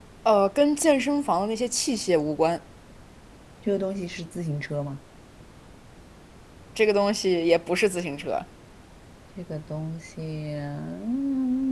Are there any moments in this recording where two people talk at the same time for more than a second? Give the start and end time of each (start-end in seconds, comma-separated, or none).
none